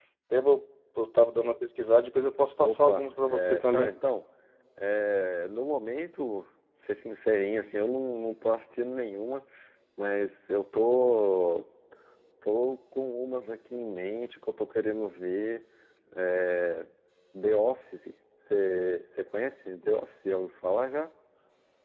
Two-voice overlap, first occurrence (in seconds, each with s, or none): 2.6 s